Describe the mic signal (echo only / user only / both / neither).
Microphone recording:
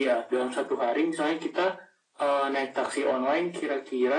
echo only